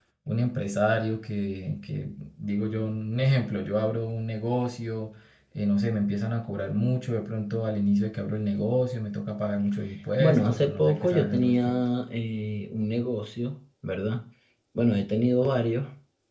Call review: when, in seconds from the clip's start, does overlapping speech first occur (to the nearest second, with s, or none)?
10 s